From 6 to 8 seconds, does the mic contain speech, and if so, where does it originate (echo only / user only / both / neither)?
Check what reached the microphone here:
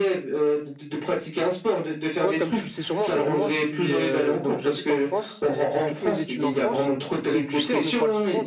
both